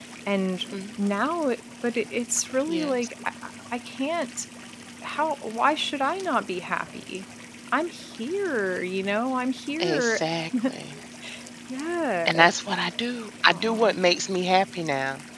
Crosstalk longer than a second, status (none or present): none